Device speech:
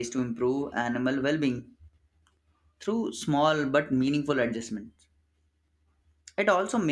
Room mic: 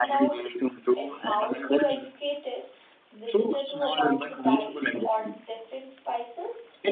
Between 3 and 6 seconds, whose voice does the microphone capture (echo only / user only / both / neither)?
both